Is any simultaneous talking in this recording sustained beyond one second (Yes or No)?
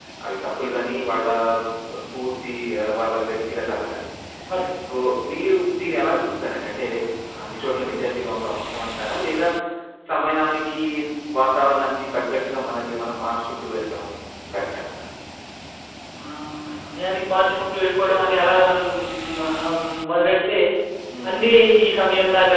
No